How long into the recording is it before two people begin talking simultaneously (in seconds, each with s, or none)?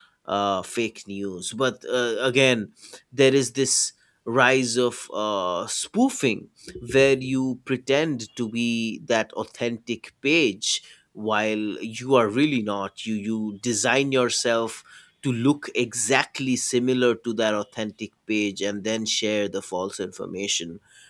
none